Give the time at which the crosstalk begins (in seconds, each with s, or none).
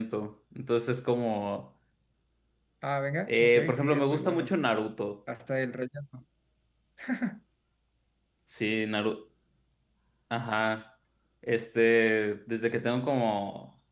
3.3 s